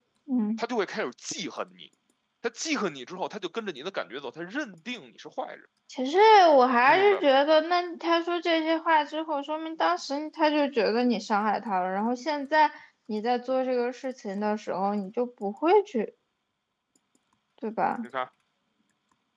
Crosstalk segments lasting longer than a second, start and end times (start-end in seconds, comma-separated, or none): none